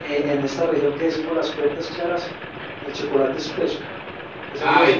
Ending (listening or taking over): taking over